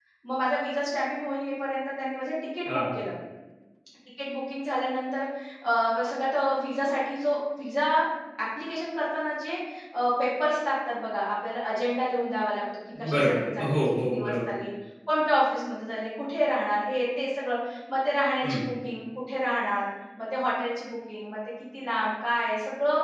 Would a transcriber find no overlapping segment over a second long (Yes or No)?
No